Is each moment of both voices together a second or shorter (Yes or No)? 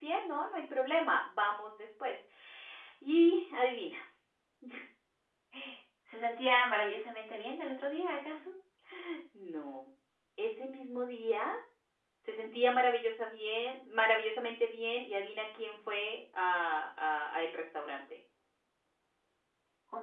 Yes